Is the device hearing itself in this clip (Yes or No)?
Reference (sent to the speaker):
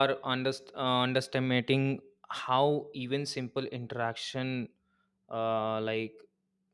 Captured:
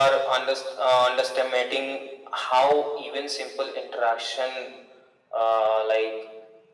Yes